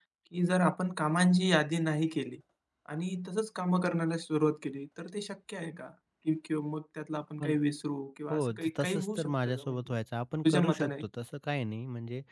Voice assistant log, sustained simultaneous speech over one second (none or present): present